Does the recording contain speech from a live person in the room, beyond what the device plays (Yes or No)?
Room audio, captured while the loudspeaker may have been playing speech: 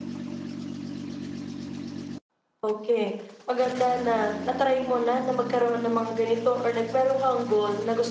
Yes